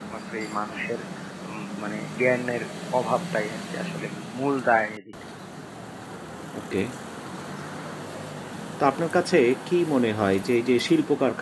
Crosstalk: none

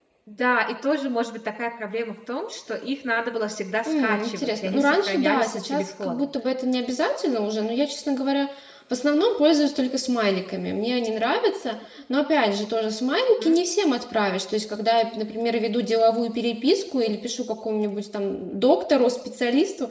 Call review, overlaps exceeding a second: present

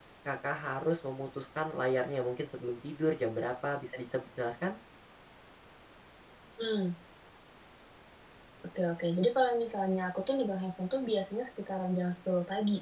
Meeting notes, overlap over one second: none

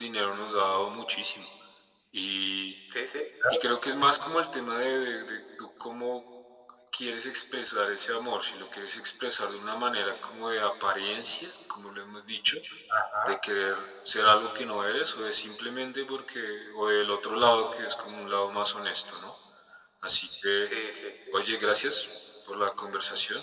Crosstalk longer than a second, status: none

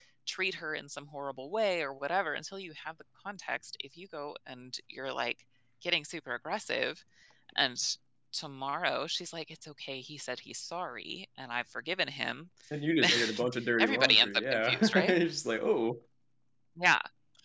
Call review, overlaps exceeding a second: present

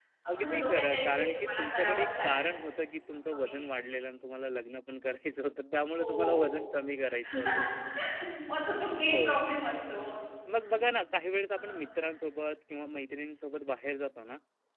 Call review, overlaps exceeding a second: present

